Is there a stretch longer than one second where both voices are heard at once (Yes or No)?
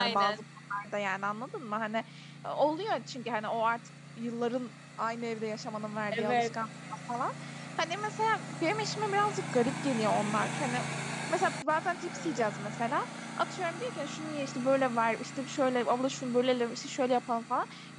No